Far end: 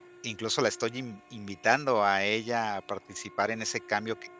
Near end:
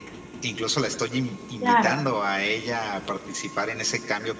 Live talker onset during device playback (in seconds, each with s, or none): 1.6 s